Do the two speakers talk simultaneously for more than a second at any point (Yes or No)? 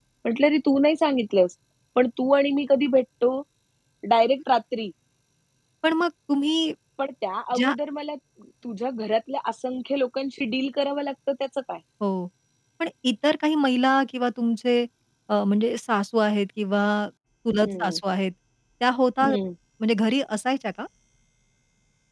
No